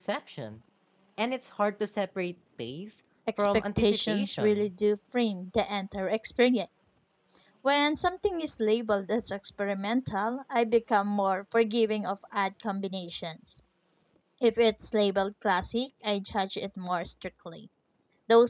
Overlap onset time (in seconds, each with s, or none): 3.4 s